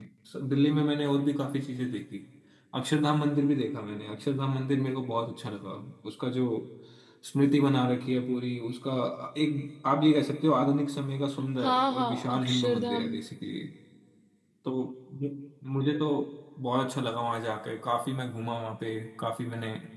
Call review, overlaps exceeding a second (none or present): present